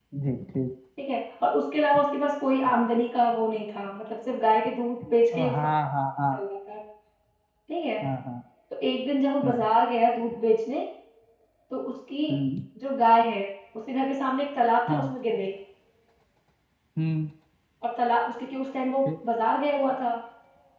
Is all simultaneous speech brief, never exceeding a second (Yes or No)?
Yes